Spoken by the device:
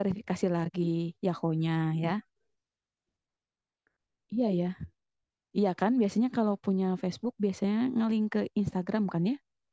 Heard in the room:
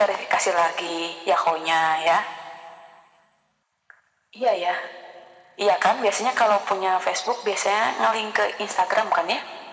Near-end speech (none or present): none